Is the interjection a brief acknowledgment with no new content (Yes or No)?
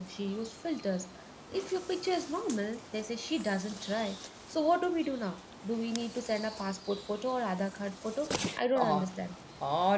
No